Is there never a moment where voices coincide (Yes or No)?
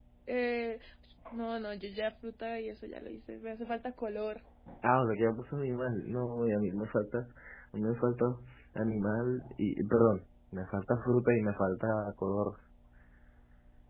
Yes